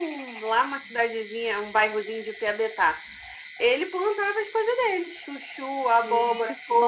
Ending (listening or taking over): taking over